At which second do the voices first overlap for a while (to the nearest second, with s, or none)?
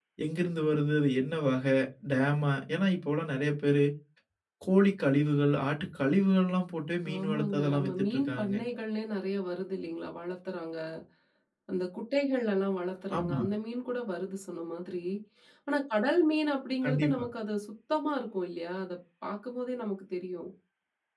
7 s